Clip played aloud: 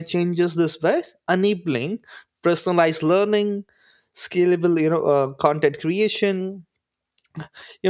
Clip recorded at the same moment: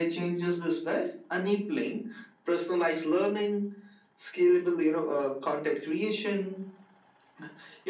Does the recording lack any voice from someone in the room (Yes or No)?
Yes